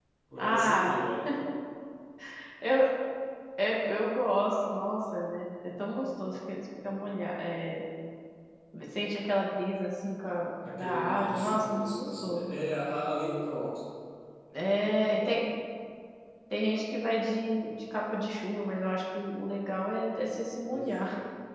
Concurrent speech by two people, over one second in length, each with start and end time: 10.8-12.5

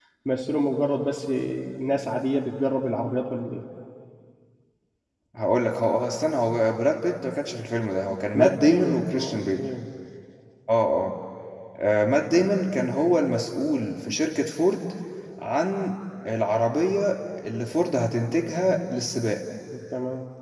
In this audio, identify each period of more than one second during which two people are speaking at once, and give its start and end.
8.3-9.6

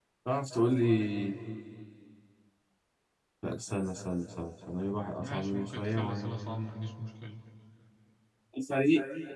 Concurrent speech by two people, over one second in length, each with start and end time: 5.2-6.5

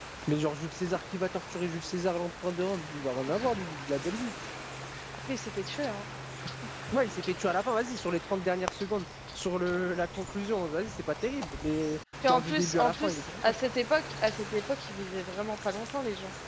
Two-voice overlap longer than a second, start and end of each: 12.3-13.5

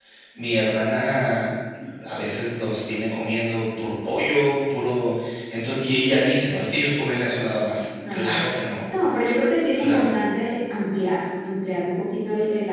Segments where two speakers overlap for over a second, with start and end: none

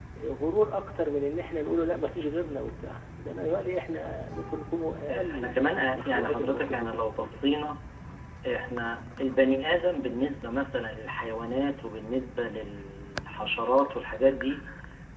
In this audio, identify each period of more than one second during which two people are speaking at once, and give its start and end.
5.1-7.3

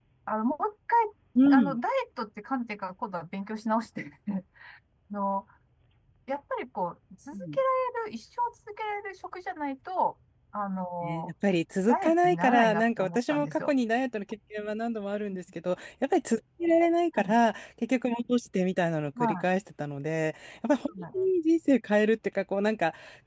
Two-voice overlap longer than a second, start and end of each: 11.9-13.7

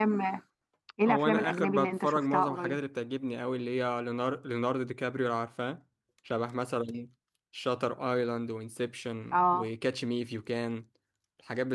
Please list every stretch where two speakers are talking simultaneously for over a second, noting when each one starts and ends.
1.1-2.8

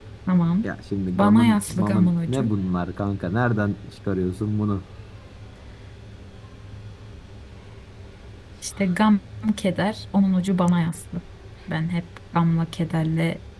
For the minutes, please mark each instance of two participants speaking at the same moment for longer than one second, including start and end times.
1.2-2.5

